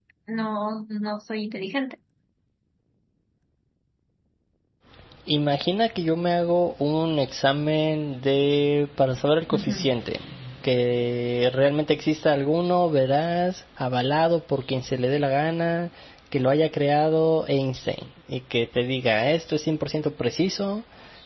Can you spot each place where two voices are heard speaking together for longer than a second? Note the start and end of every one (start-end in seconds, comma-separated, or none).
none